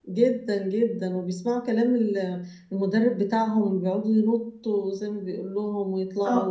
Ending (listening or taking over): taking over